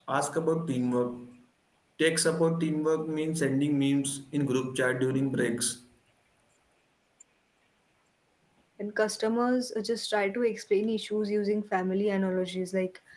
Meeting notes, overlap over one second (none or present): none